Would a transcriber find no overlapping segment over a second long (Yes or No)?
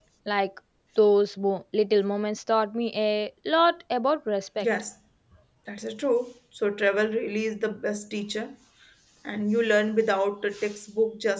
Yes